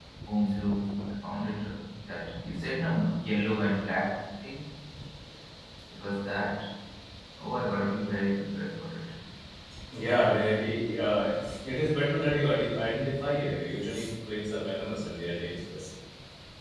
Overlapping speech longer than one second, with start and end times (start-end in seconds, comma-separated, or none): none